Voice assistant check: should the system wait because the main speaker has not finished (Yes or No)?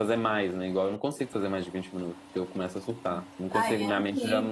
No